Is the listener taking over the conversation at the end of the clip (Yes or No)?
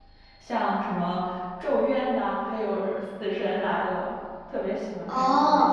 Yes